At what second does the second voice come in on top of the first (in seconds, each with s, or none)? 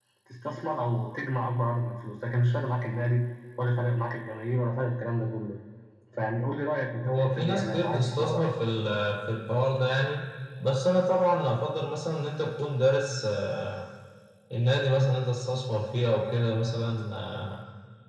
7.0 s